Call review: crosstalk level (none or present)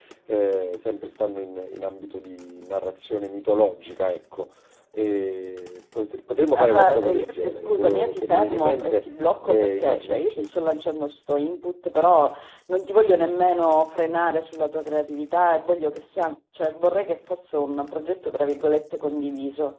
present